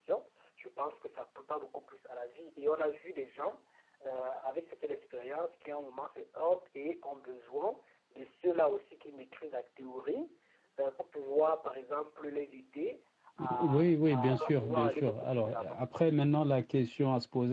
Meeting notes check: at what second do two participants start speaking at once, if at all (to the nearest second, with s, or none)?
13 s